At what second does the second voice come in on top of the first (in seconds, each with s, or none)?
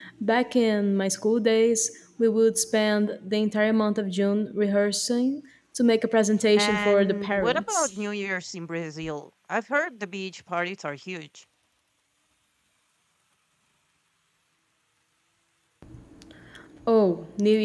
6.5 s